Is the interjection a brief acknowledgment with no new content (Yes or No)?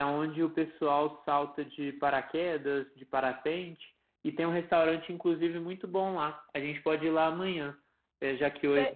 Yes